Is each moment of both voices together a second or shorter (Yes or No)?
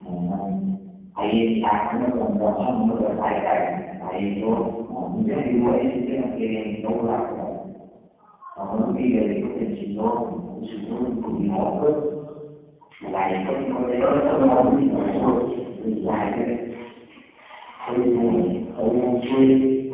No